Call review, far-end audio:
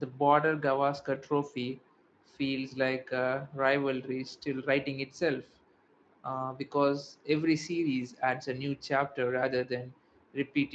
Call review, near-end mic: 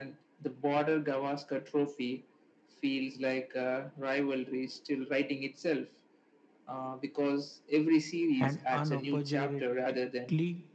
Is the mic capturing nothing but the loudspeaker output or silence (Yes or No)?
No